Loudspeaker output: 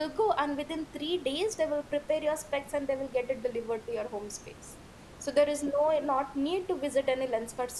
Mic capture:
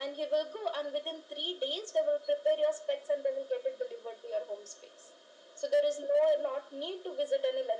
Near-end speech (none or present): none